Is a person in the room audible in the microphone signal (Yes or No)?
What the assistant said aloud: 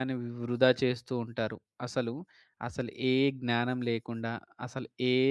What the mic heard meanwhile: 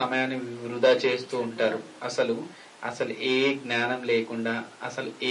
Yes